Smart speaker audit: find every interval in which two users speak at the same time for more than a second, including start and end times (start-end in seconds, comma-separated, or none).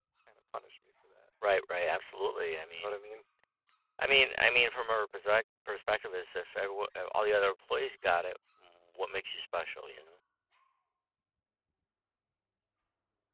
none